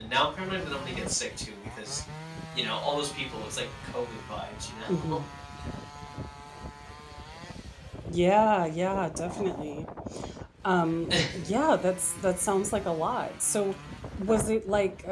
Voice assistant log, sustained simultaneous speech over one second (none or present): none